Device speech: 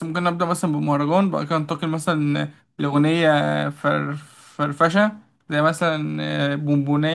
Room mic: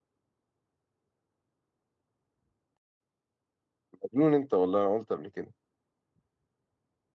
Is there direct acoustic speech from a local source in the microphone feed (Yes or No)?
Yes